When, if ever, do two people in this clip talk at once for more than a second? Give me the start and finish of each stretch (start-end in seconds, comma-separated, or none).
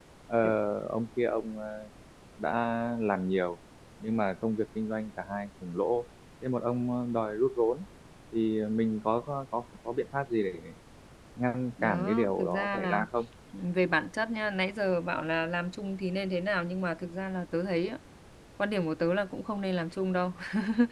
11.8-13.0